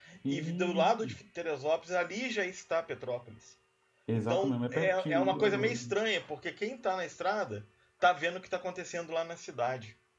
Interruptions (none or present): present